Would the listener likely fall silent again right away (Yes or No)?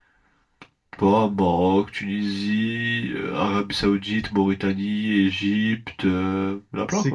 No